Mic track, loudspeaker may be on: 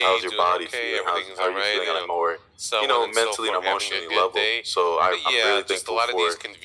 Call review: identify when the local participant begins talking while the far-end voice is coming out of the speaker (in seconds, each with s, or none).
none